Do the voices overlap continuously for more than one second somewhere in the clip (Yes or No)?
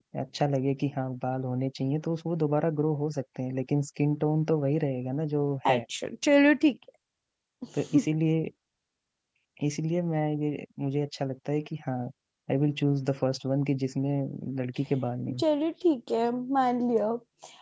No